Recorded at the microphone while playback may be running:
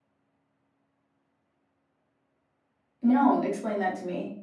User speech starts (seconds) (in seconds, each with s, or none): 3.0 s